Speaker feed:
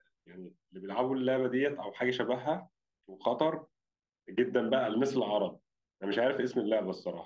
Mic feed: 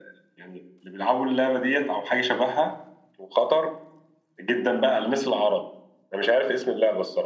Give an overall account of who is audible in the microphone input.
echo only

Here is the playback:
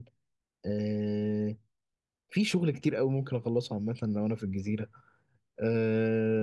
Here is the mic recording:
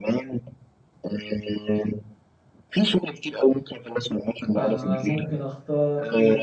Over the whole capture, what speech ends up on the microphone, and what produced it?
both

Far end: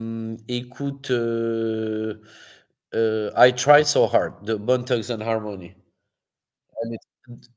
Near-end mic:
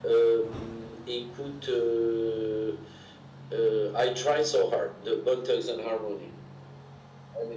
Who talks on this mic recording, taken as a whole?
echo only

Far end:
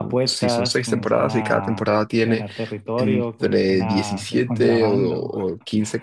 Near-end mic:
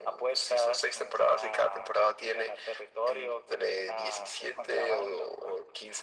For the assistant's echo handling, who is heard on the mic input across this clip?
echo only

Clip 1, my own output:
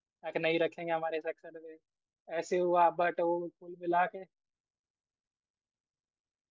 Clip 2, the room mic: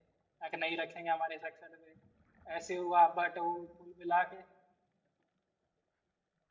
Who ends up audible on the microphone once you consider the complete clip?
echo only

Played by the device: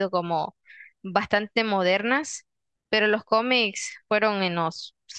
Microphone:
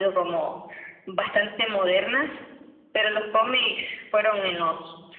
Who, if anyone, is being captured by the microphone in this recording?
echo only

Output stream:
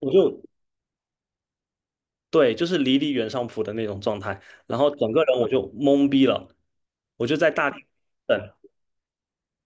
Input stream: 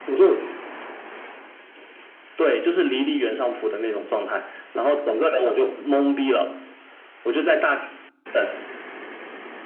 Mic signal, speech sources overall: echo only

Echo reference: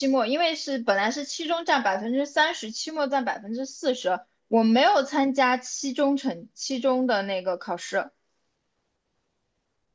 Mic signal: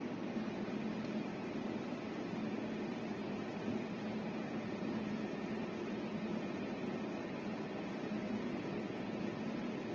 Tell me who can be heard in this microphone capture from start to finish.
neither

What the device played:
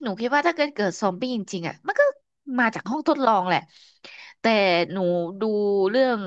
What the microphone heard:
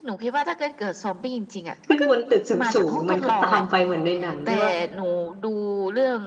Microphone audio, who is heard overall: both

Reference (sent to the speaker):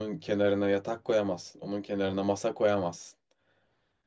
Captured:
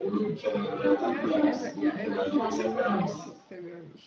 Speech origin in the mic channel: both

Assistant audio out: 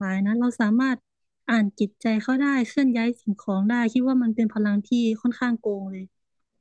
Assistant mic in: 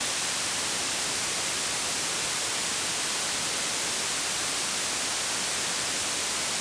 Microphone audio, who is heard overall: neither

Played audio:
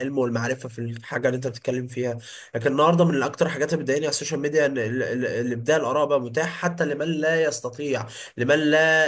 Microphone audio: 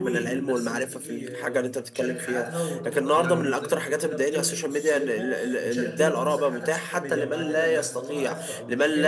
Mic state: both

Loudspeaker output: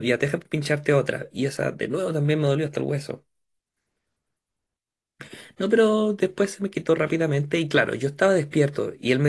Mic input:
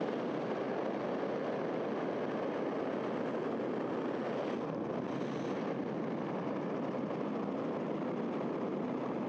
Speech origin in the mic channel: neither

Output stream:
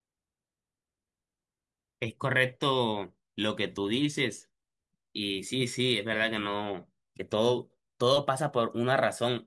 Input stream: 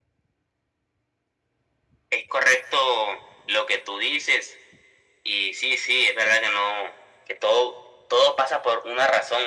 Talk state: echo only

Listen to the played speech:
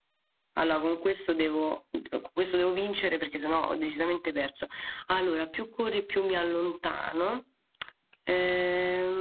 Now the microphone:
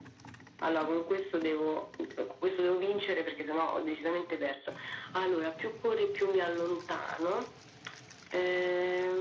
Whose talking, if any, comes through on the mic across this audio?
echo only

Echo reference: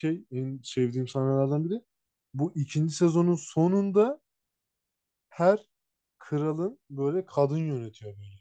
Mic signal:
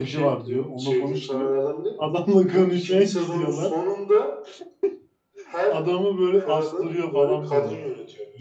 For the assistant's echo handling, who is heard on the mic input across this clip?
both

